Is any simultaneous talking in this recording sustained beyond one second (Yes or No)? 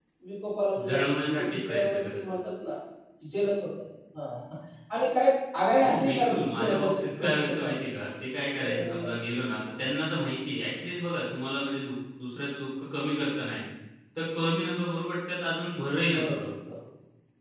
Yes